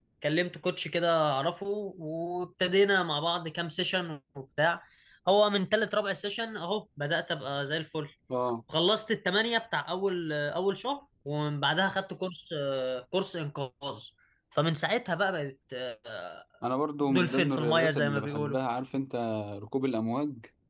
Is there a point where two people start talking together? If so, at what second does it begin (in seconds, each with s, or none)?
17.0 s